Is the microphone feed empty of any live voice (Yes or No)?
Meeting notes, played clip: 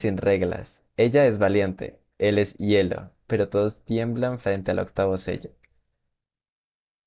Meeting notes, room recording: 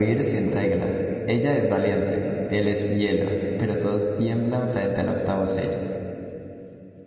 Yes